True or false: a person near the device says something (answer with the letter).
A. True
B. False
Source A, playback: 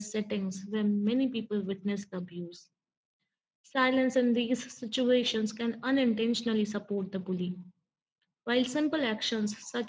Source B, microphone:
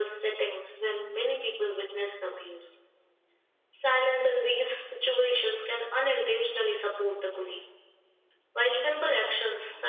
B